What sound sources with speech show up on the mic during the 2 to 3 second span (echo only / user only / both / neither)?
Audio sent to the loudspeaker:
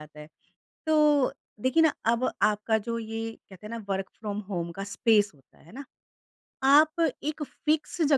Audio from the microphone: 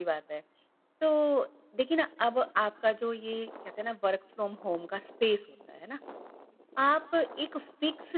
echo only